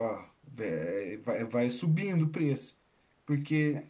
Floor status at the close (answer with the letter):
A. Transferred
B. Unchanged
B